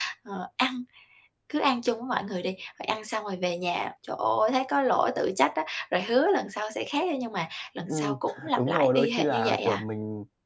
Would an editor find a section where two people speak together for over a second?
Yes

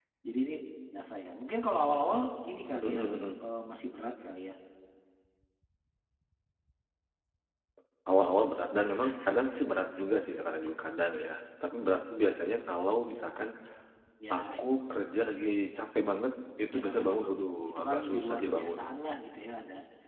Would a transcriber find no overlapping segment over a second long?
No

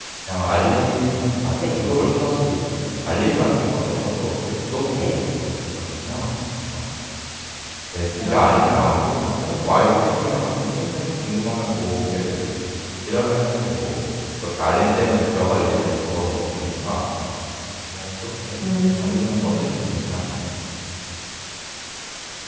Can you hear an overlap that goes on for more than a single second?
Yes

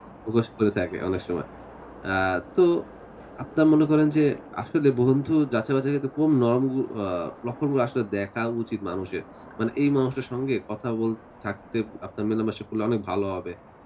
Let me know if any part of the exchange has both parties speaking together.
No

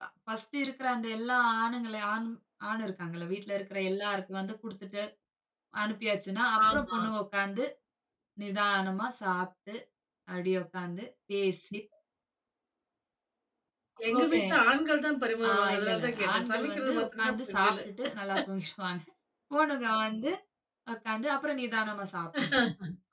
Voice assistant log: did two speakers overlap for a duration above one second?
Yes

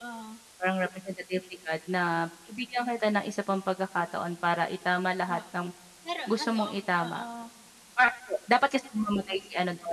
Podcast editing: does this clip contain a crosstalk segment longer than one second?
No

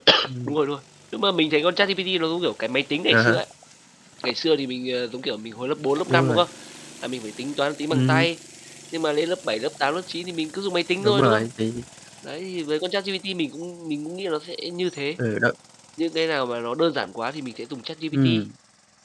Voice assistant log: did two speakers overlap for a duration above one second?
No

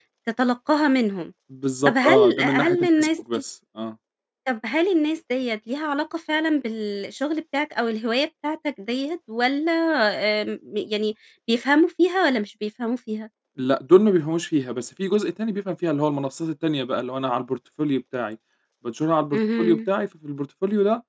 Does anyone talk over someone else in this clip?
Yes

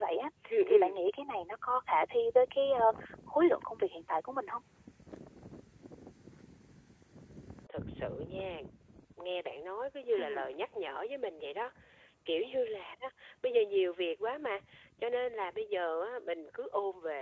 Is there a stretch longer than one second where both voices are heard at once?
No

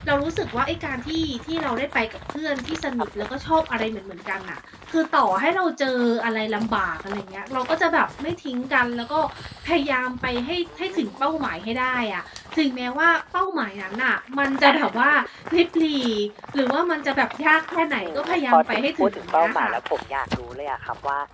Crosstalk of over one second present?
Yes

